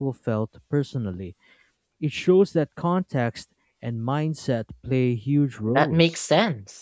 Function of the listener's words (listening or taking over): taking over